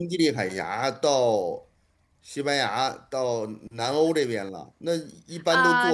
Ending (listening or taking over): taking over